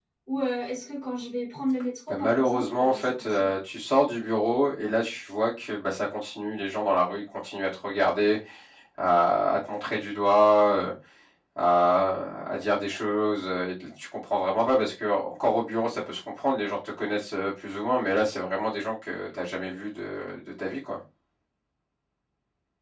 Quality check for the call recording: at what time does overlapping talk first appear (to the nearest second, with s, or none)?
2 s